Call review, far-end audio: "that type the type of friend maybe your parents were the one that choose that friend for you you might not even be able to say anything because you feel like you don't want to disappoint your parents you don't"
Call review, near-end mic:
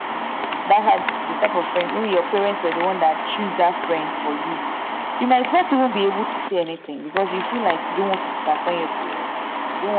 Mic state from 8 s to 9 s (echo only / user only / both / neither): echo only